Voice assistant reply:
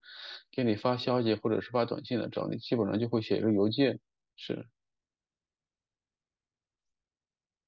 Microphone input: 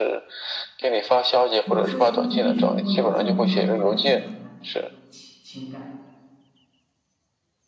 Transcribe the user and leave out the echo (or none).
有些时候仅仅是通过邮件不能够完全表达你的这种情情感，